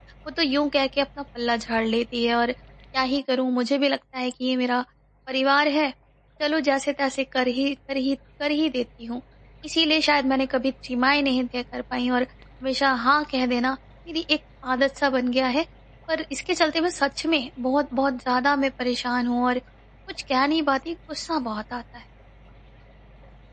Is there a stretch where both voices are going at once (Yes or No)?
No